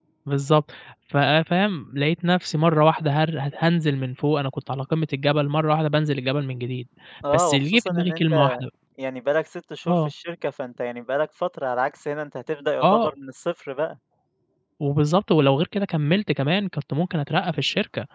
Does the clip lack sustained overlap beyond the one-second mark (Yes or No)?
No